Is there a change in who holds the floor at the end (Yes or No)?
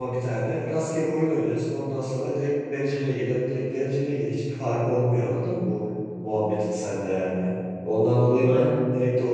No